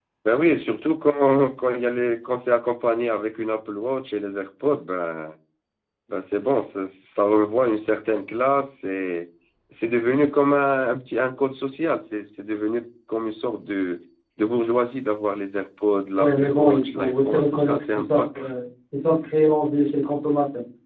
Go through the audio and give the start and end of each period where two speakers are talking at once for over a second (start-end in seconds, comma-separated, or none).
16.2-18.4